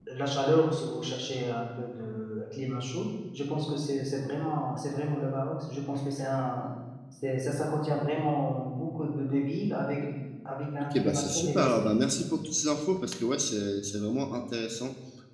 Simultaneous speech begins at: 11 s

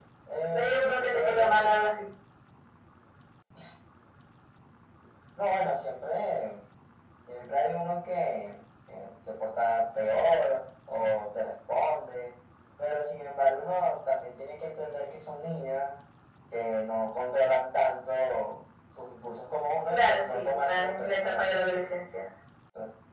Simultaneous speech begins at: 1 s

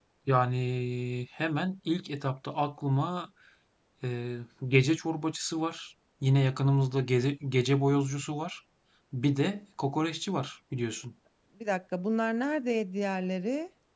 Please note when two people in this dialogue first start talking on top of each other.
none

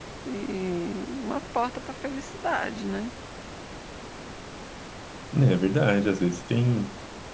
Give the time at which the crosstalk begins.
none

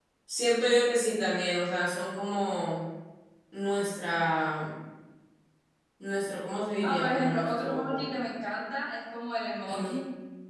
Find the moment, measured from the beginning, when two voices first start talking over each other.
7 s

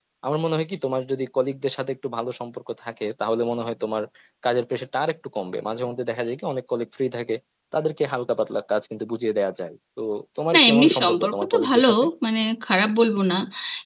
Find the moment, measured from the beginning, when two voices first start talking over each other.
11 s

